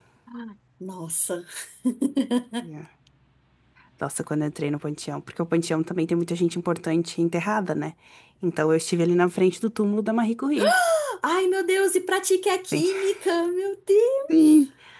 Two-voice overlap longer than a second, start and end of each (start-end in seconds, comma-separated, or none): none